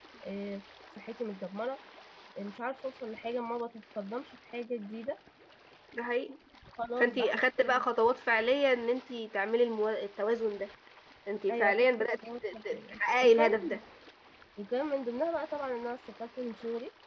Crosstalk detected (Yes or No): Yes